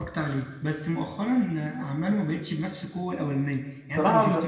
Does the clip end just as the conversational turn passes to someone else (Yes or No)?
No